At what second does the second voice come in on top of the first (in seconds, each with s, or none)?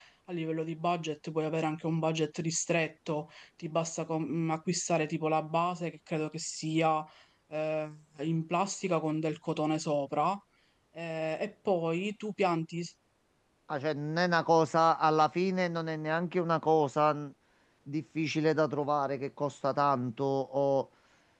none